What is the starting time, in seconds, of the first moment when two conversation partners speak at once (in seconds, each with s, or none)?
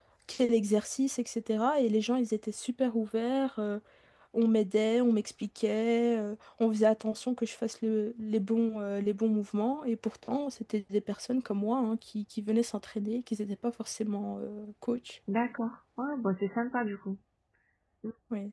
none